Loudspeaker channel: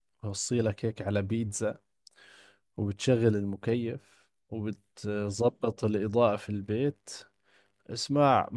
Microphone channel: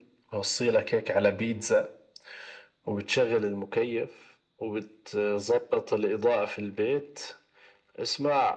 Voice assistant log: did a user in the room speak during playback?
No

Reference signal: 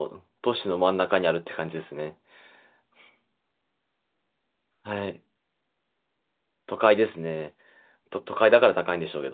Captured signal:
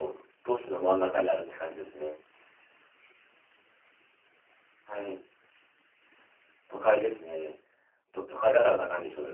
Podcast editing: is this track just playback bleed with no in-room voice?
Yes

